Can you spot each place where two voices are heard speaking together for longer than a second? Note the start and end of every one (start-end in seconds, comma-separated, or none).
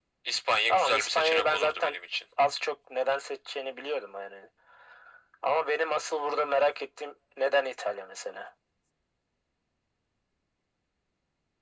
0.7-1.9